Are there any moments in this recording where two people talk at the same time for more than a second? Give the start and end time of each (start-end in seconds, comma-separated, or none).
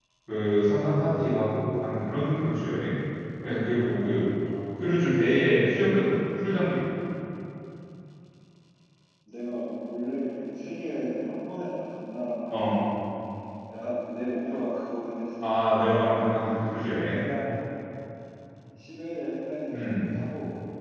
none